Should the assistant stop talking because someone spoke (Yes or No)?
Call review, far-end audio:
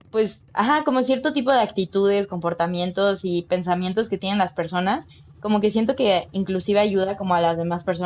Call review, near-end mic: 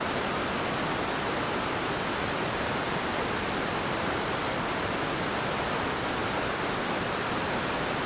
No